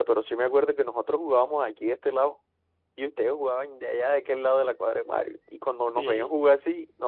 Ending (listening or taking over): listening